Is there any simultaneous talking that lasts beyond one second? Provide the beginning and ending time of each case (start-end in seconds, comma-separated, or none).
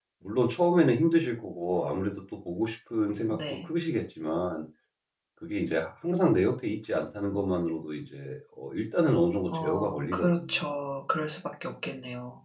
9.5-10.7